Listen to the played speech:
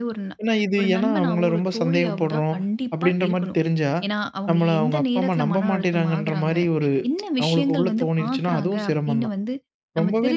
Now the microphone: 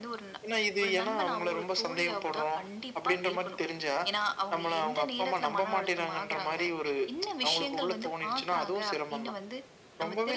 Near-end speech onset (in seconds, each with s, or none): none